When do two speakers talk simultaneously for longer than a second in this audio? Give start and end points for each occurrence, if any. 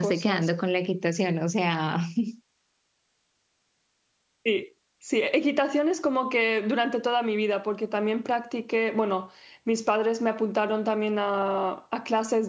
none

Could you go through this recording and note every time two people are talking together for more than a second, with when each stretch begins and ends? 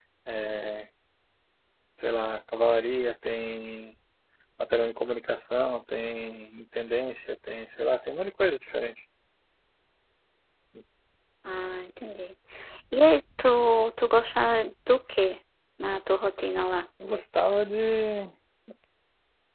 none

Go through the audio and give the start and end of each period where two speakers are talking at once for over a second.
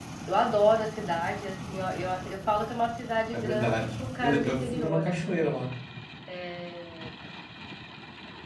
3.3-5.5

